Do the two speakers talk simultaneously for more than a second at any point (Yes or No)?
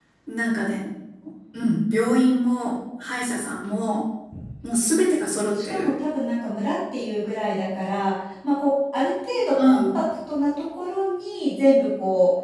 No